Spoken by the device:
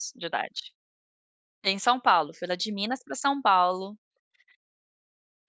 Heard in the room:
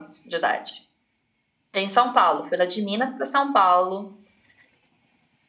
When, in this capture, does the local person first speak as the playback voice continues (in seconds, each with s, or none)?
none